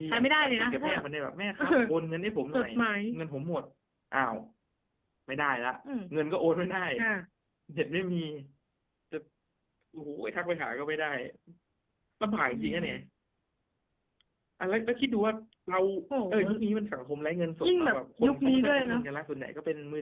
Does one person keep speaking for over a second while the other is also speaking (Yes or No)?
Yes